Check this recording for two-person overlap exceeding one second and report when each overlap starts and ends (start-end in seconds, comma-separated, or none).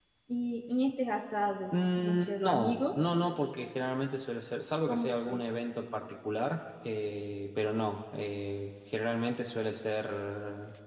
1.7-3.1